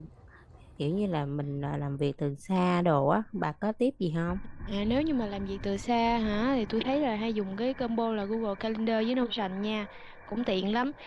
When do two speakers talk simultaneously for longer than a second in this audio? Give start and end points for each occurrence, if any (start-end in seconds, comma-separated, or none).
none